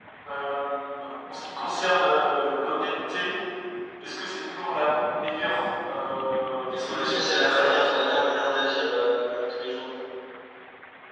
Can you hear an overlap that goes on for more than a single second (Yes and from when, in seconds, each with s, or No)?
Yes, from 6.8 s